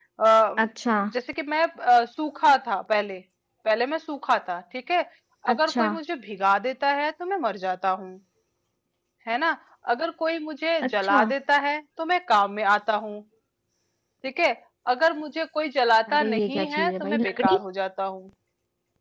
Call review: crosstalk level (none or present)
present